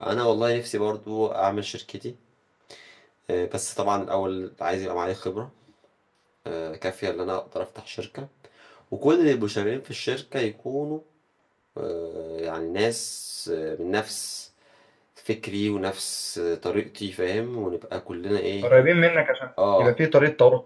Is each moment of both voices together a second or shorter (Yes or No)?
Yes